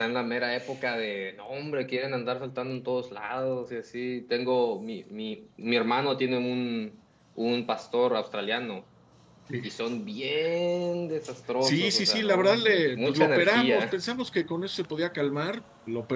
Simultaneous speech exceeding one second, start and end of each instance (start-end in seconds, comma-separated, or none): 11.6-14.0